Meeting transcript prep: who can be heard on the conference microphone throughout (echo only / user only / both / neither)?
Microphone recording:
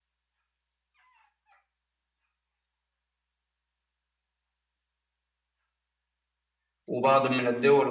user only